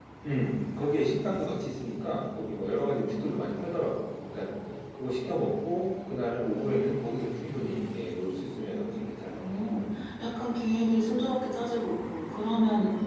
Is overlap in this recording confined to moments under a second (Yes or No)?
Yes